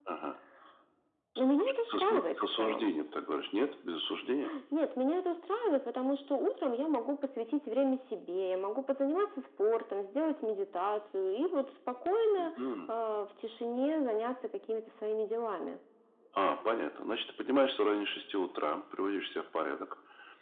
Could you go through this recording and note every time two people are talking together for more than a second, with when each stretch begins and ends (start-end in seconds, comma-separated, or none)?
1.5-2.9